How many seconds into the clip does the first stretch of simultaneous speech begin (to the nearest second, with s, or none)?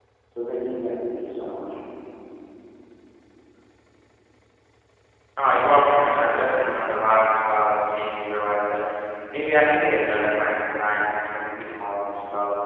none